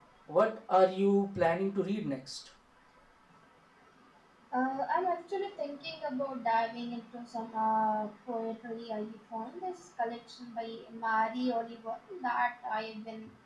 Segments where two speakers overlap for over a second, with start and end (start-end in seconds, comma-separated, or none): none